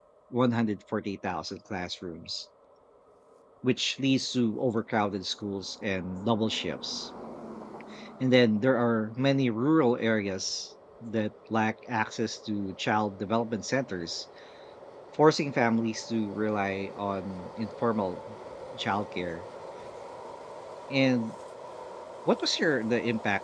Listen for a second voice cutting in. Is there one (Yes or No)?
No